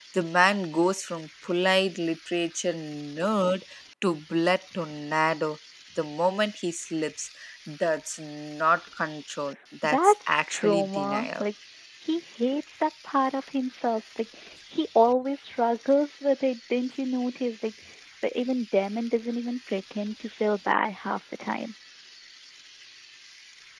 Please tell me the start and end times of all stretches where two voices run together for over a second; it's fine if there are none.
9.8-11.5

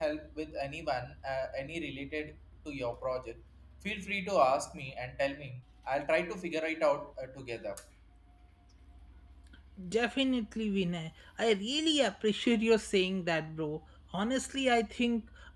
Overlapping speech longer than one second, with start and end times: none

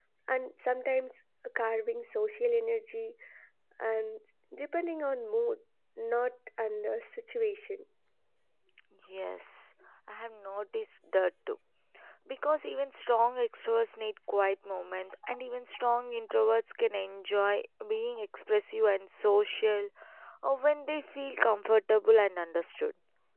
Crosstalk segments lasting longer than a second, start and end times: none

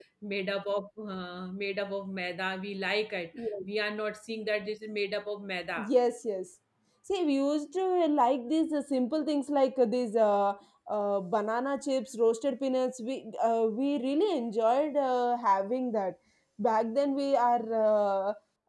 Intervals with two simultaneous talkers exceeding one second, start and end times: none

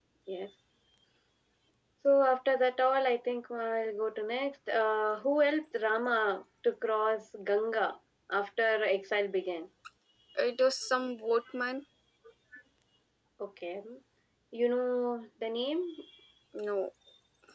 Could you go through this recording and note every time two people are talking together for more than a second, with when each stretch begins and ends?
none

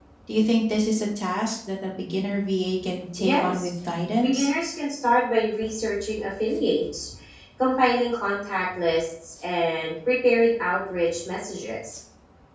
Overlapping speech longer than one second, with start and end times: none

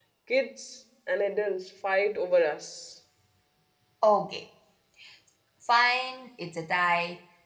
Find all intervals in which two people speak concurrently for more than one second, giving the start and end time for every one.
none

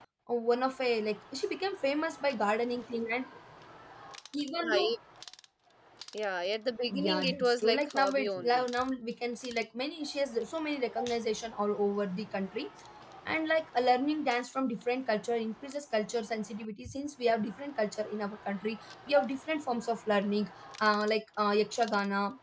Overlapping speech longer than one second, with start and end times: 6.9-8.7

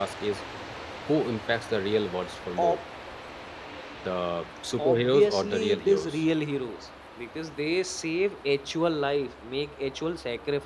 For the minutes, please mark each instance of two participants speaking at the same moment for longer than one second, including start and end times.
4.8-6.2

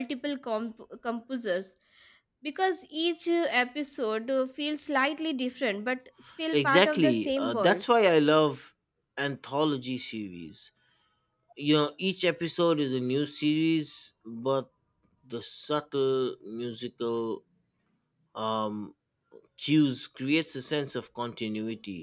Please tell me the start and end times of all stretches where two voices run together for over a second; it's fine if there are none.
6.5-7.8

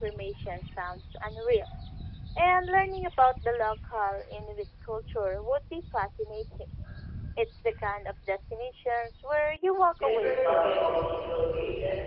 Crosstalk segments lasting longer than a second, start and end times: 10.0-11.4

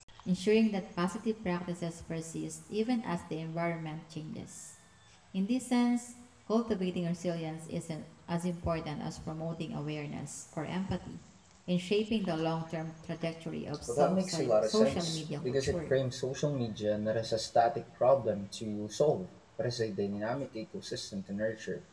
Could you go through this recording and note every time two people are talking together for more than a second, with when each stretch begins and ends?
13.9-16.0

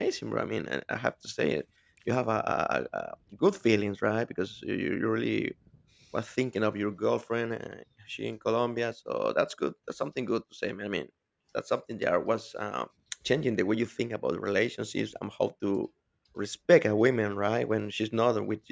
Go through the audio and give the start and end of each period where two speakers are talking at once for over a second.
none

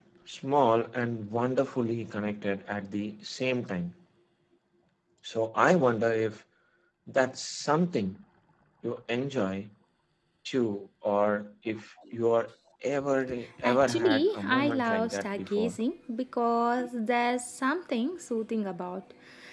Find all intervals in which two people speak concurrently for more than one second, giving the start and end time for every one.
13.6-15.8

